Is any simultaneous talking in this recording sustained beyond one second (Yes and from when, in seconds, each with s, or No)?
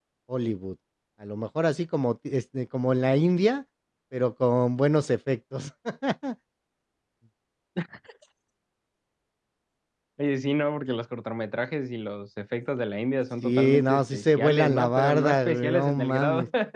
Yes, from 13.4 s